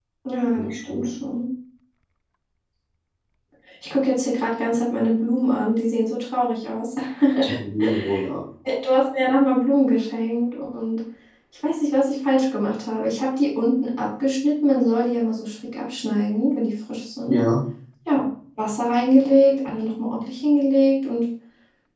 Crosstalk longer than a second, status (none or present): none